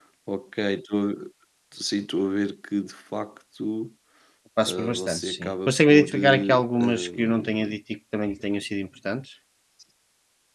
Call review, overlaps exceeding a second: present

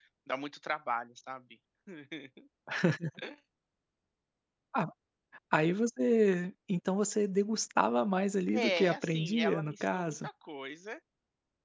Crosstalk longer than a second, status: present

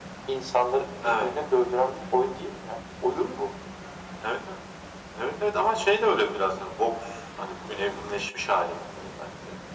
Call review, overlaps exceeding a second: none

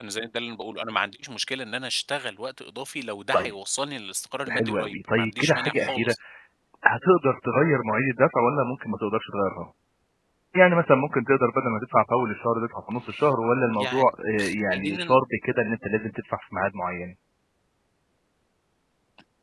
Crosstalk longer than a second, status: present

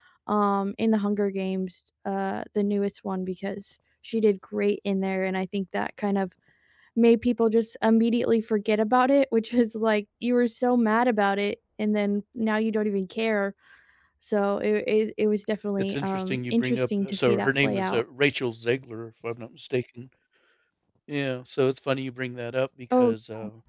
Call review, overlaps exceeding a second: present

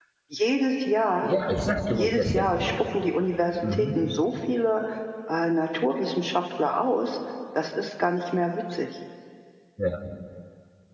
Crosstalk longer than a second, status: none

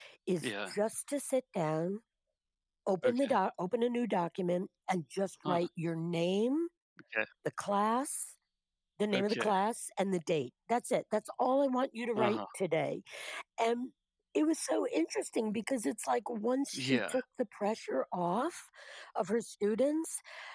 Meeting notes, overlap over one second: none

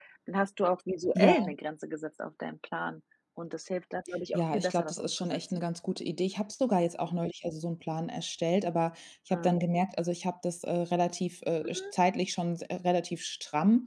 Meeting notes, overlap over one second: present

